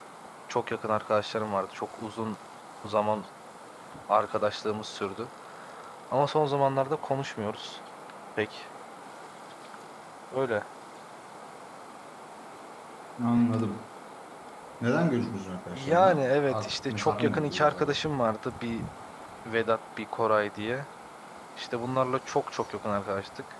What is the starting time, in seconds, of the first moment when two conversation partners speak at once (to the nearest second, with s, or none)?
16 s